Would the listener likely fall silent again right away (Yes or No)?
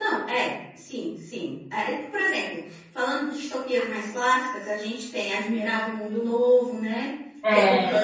Yes